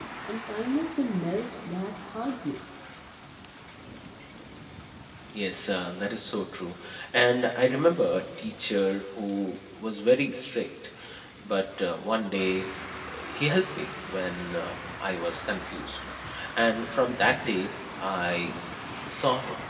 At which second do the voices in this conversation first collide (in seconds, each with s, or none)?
none